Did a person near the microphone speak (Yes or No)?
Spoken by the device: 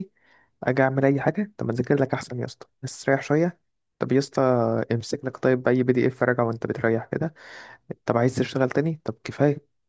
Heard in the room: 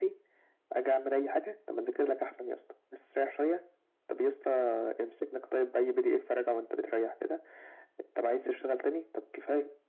No